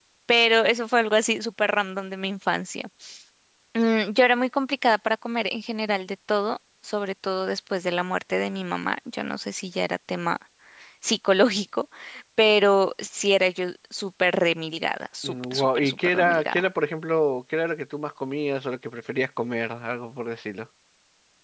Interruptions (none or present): present